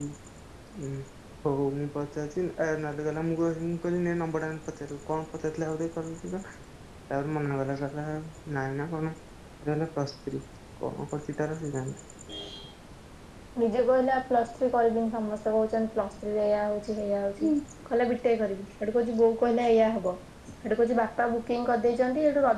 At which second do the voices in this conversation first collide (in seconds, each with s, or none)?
none